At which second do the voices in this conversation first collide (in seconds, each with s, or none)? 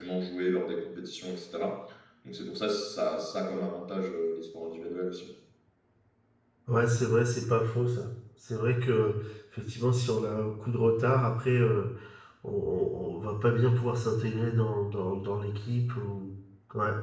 none